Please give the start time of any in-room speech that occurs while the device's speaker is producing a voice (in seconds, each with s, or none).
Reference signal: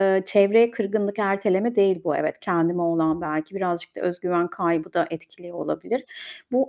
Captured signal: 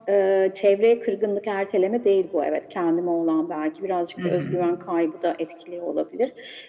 4.2 s